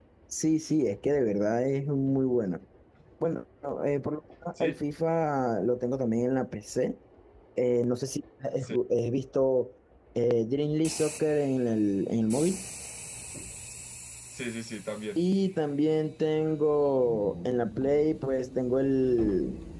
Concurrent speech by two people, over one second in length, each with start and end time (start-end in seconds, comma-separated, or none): none